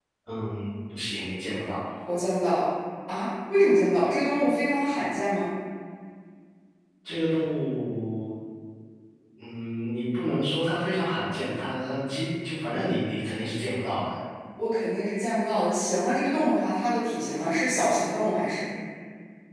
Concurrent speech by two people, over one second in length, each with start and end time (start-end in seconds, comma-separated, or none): none